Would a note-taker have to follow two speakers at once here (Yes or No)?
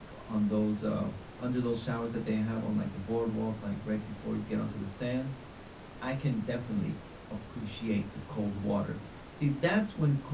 No